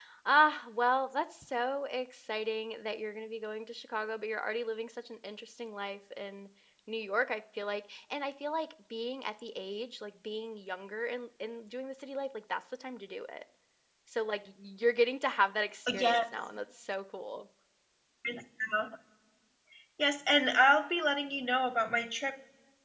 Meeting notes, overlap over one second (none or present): none